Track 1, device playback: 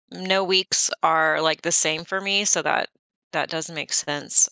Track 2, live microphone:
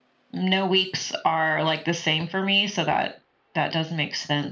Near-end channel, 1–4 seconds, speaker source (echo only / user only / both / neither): echo only